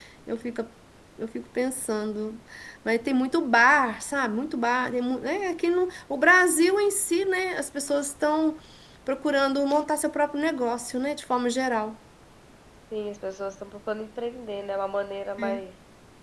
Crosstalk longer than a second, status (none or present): none